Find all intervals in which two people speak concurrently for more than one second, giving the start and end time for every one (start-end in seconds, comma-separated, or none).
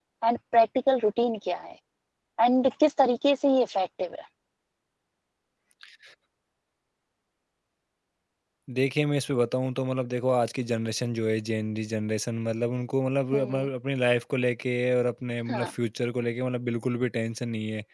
none